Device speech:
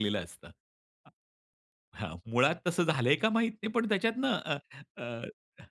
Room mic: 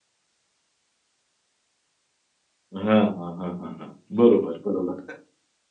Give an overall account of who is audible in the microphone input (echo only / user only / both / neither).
user only